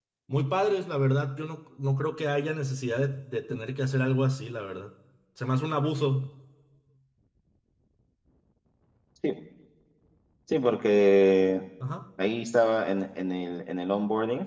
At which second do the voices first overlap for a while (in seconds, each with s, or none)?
none